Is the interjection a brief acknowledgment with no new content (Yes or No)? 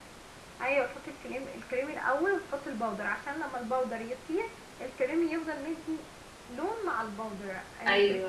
Yes